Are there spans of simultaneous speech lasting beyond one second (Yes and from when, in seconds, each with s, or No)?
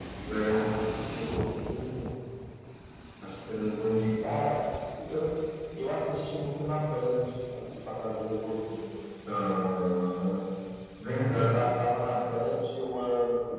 No